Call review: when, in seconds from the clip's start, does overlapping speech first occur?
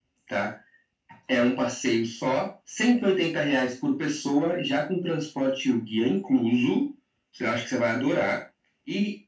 none

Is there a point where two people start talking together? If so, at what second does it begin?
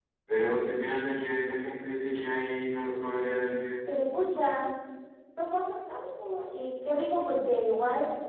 none

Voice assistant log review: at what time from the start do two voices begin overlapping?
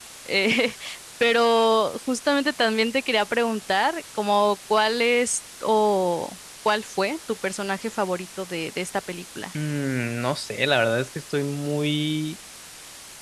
none

